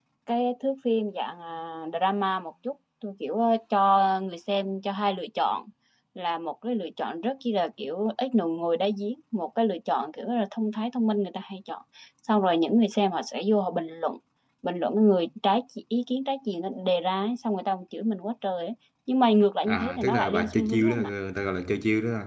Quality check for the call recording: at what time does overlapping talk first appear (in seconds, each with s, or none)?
19.6 s